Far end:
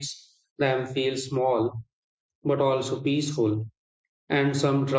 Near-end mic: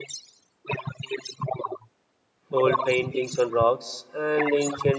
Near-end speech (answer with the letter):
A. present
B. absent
A